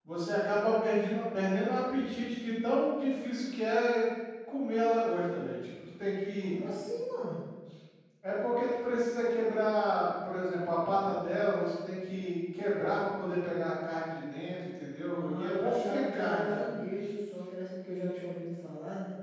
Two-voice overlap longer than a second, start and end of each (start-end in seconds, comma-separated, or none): 15.0-16.6